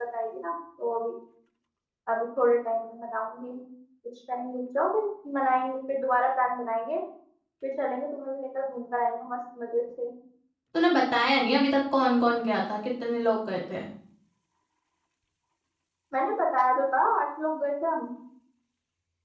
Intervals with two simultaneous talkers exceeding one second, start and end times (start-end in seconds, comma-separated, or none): none